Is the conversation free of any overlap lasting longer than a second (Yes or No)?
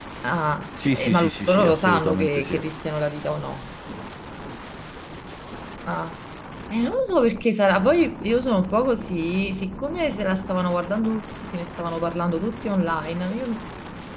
No